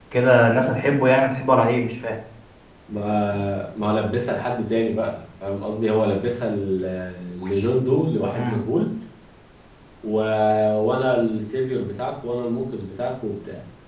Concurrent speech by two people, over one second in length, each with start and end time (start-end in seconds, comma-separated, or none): none